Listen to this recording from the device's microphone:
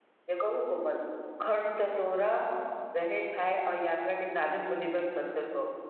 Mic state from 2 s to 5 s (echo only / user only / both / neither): user only